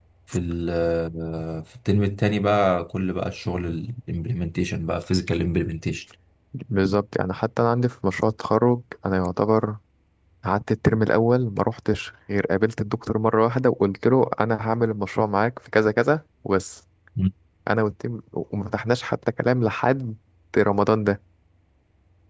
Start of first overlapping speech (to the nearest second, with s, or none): none